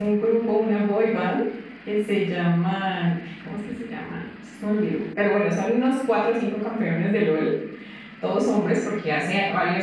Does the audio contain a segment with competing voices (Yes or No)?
No